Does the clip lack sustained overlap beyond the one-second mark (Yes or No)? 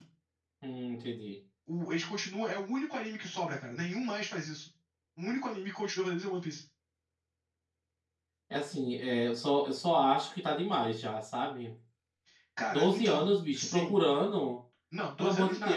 No